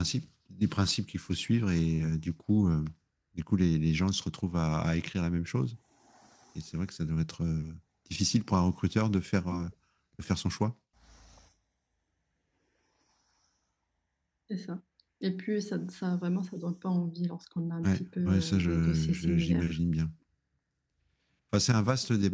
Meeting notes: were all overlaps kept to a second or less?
No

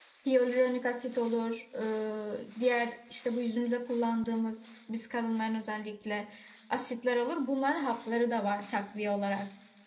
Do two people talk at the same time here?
No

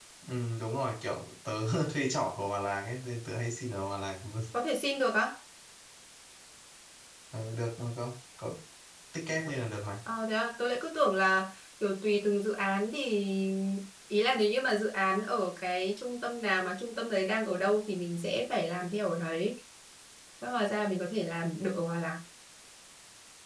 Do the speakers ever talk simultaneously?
No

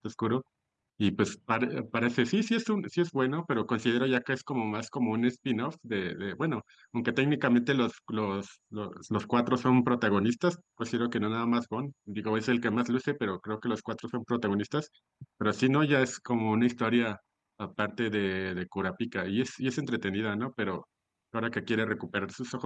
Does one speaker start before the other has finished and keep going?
No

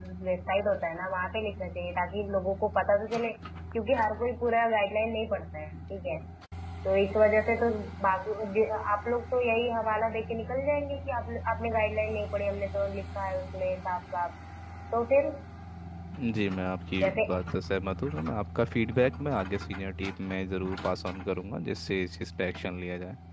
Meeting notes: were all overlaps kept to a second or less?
Yes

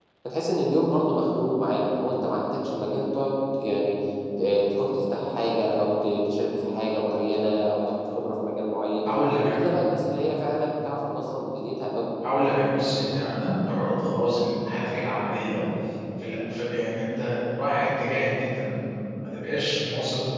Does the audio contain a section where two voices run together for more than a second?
No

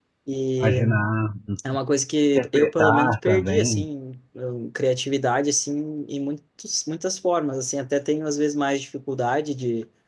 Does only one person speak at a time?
No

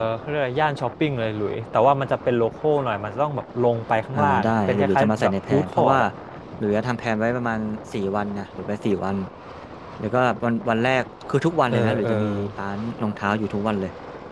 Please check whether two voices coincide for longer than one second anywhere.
Yes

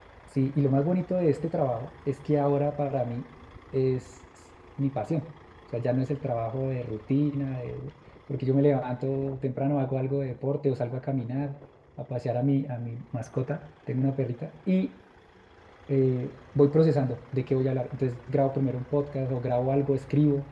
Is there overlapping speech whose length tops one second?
No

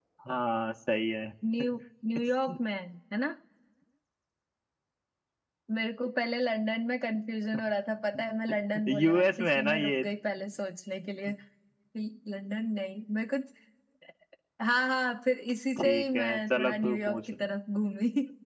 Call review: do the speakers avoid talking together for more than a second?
No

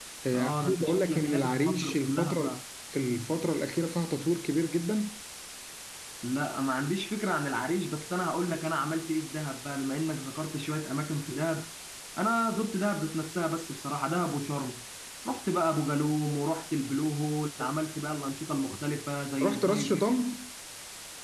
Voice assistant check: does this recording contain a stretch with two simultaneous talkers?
Yes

